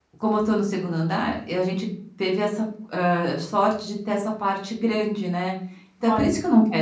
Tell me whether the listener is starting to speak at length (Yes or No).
No